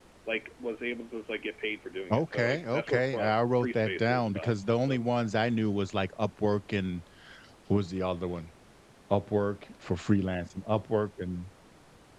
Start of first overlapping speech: 2.1 s

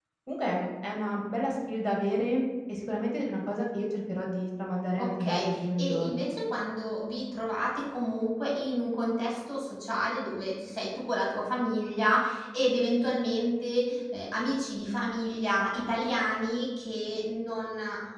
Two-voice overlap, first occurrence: 5.0 s

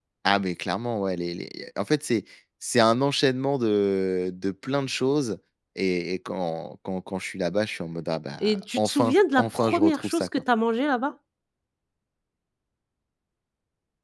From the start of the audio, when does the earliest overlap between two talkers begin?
8.4 s

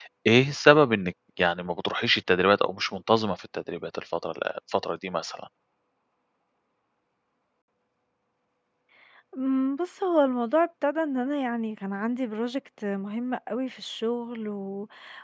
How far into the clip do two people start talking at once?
none

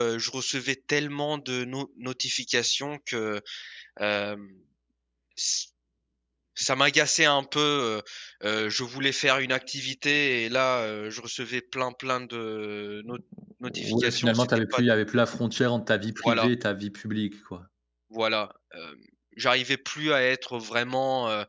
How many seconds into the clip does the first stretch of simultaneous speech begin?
13.7 s

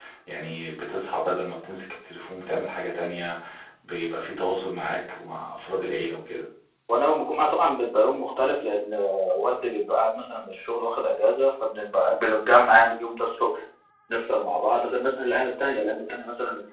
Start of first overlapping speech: none

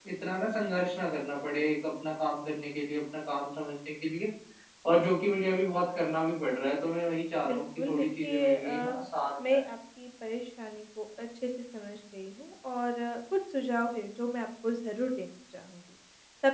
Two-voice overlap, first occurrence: 7.4 s

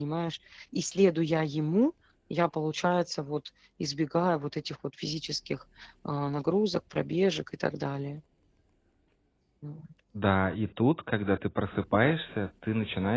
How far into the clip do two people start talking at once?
none

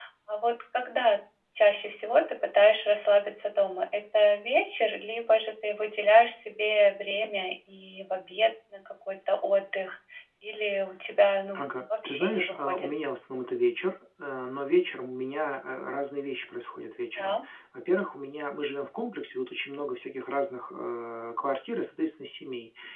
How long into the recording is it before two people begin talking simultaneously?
11.6 s

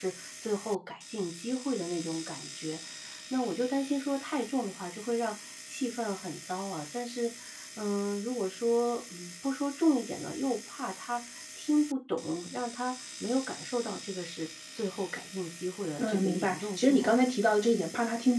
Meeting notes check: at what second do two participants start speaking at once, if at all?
16.0 s

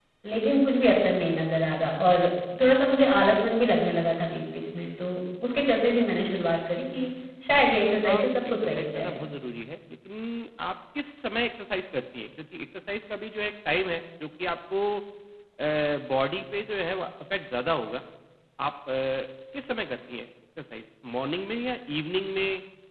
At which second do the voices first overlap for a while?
8.0 s

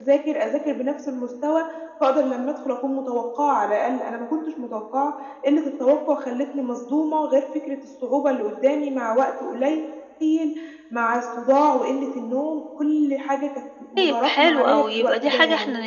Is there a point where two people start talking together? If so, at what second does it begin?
14.0 s

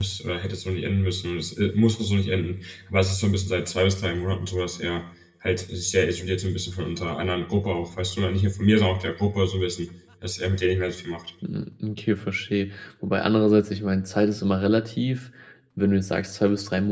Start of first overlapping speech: none

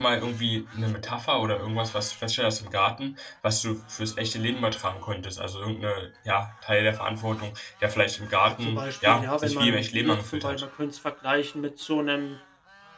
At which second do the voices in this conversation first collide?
8.4 s

